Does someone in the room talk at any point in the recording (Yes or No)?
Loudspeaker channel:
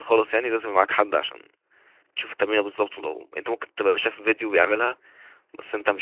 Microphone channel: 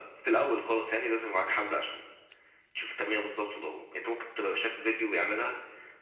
No